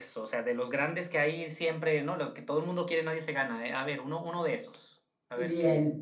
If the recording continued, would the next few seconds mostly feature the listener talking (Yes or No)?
Yes